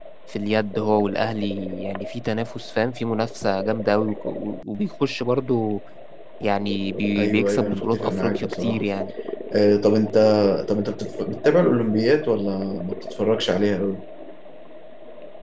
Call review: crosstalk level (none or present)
present